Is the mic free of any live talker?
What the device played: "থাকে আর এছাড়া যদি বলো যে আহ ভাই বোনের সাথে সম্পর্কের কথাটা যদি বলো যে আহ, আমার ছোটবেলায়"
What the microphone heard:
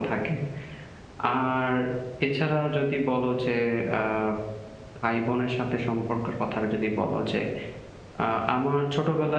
Yes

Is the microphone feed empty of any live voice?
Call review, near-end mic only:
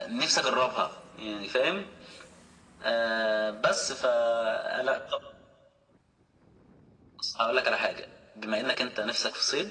Yes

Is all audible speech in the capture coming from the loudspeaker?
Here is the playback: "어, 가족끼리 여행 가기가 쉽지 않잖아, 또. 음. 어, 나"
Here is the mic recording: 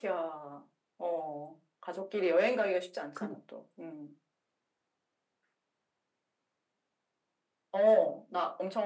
No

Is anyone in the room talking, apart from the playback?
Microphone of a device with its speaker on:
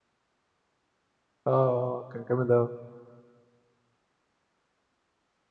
Yes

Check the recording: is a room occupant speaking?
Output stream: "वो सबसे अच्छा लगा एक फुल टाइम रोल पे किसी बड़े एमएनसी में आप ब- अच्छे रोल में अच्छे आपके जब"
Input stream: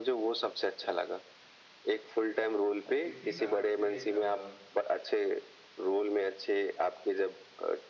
Yes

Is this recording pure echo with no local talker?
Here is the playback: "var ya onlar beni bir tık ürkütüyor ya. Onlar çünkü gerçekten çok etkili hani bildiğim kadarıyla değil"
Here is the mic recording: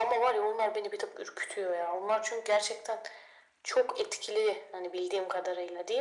Yes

